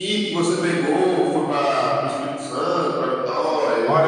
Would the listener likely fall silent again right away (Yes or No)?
No